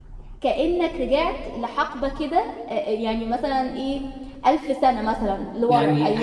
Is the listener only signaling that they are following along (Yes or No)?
No